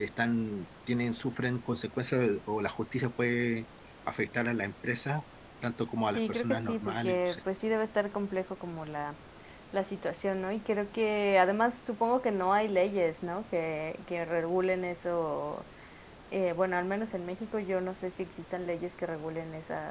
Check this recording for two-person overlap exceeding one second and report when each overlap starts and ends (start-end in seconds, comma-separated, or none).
6.2-7.4